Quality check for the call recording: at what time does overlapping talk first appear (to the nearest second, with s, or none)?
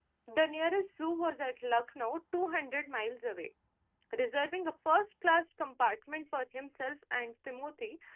none